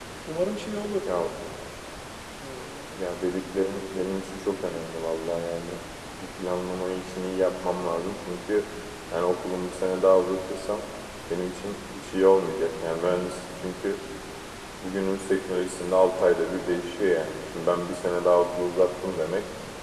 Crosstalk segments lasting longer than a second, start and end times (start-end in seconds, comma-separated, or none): none